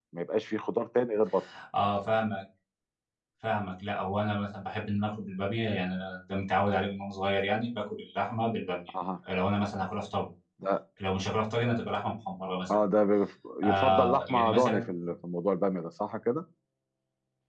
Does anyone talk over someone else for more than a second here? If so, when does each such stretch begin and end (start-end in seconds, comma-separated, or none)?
13.6-14.9